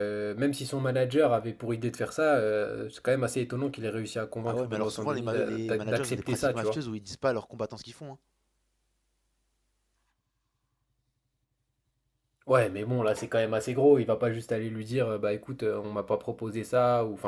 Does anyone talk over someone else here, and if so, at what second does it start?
4.5 s

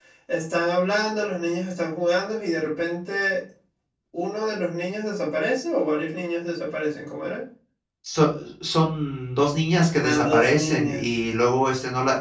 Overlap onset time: 10.0 s

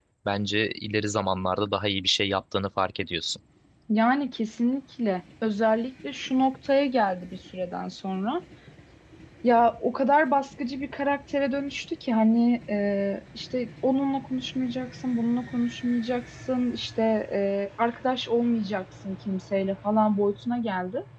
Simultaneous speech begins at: none

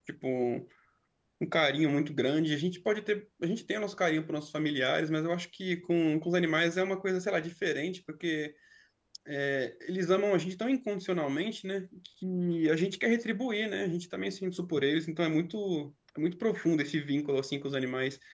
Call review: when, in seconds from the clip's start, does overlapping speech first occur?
none

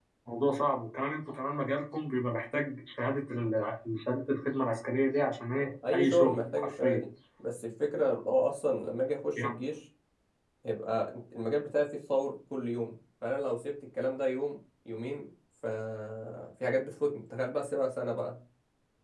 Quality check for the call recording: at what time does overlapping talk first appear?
5.5 s

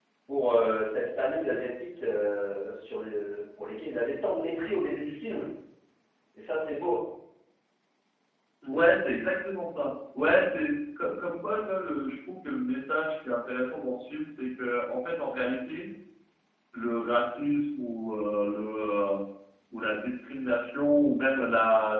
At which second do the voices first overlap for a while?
none

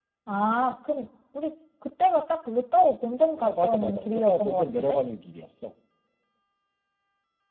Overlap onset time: 3.4 s

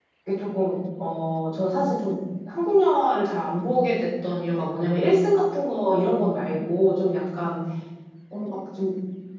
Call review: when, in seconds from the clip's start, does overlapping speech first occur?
none

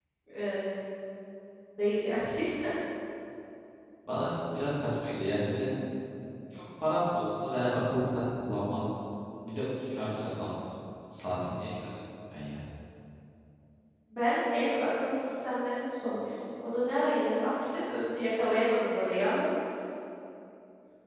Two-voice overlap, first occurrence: none

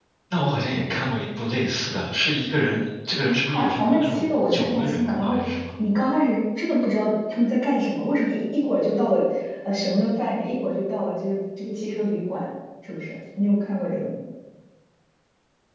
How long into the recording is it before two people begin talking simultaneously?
3.4 s

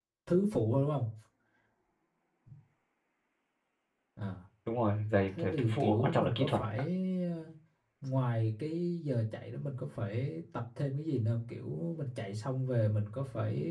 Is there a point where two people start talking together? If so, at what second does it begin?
5.4 s

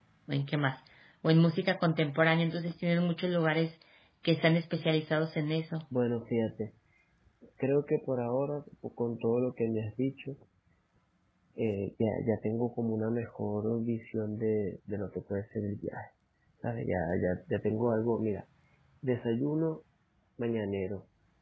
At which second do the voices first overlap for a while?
none

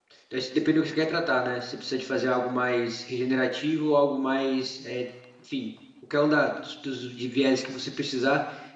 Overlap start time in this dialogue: none

